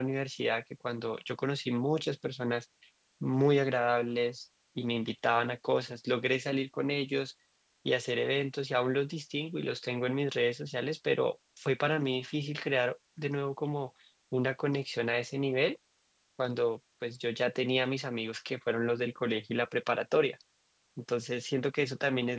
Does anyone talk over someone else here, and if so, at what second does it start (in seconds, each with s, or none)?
none